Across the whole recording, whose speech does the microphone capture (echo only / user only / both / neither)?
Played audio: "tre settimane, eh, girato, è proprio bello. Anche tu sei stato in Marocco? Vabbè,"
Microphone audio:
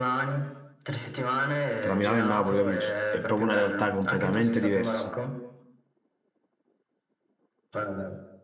both